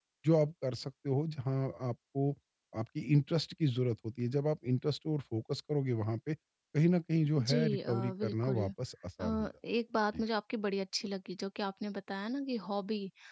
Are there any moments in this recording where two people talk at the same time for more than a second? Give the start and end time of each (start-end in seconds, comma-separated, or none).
7.4-8.7